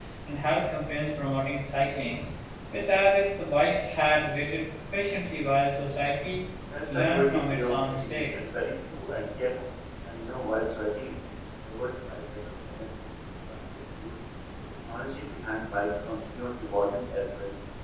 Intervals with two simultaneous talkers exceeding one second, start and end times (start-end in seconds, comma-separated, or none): 6.9-8.2